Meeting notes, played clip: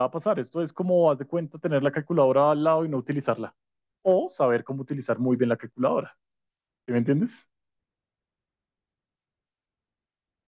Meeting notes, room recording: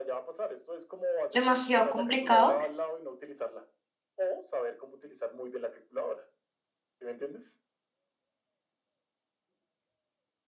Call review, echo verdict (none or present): present